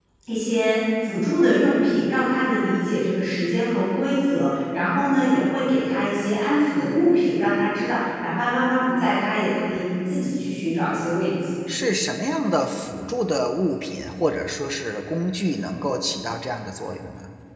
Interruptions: none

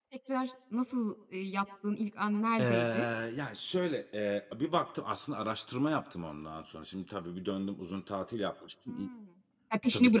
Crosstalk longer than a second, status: none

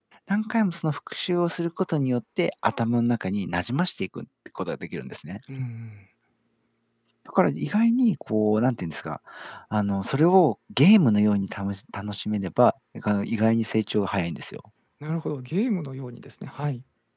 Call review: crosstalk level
none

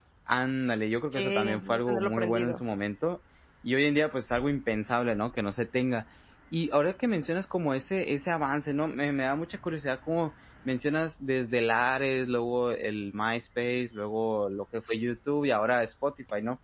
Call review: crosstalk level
present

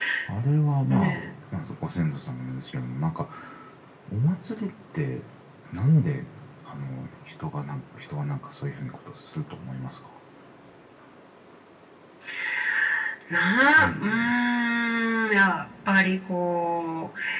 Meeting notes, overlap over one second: none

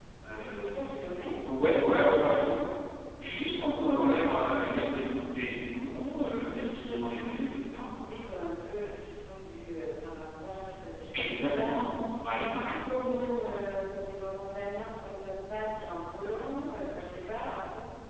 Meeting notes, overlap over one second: present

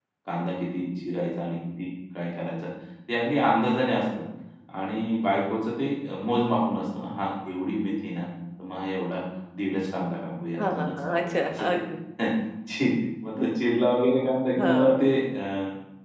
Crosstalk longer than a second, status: present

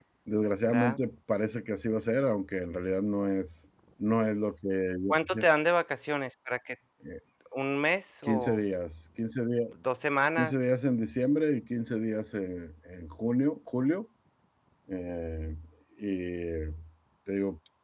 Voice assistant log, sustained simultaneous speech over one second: none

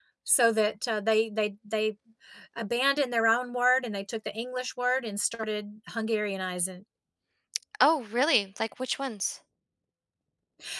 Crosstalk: none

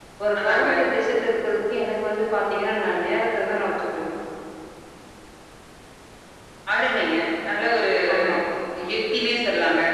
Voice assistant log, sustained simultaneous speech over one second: none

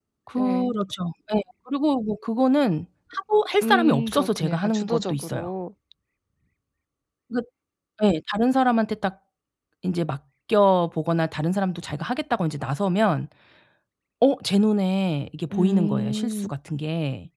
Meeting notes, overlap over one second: present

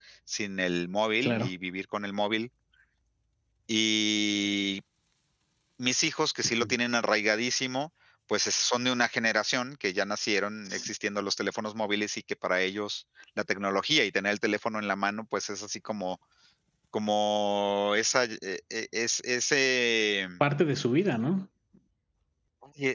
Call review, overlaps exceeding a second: none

